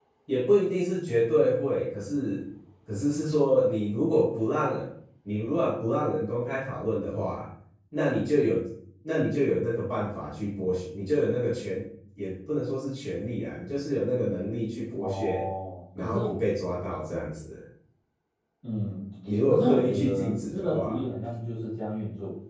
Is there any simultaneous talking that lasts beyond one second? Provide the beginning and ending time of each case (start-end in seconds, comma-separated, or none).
19.5-21.0